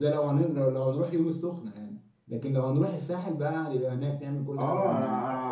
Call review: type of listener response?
taking over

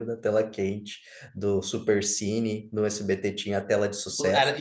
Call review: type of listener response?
taking over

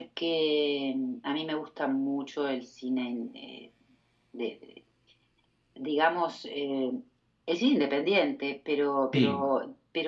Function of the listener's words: listening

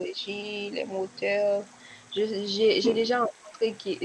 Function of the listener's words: listening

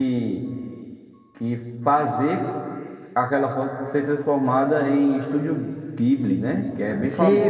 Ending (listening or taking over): taking over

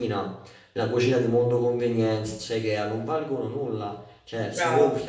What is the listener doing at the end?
listening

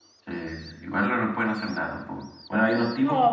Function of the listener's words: listening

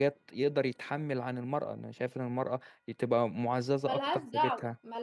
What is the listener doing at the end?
taking over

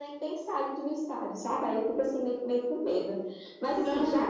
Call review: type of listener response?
taking over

